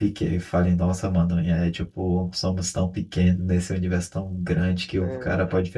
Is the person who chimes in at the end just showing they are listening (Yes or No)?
Yes